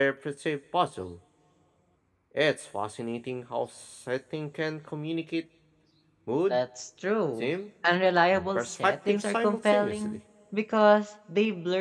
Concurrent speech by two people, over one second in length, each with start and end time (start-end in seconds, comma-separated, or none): 8.3-10.2